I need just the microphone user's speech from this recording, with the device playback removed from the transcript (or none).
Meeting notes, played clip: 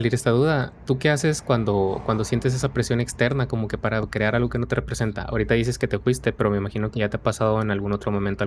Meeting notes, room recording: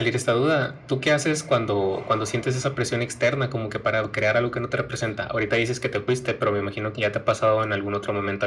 none